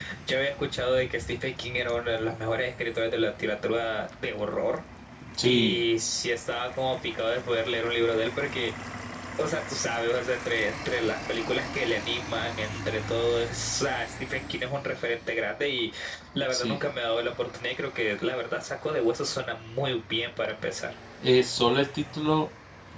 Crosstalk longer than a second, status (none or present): none